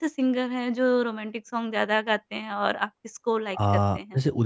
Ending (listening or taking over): taking over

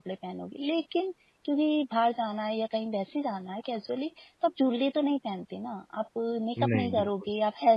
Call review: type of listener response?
listening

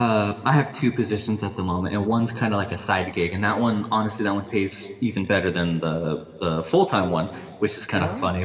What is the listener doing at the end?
listening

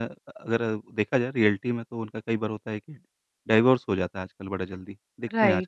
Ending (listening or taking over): listening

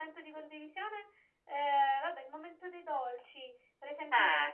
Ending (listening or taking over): listening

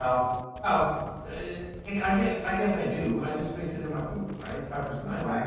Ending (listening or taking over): taking over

